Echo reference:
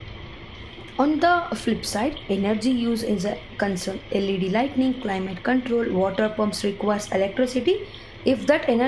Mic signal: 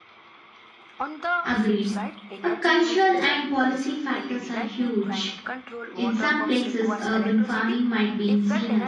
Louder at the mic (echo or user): user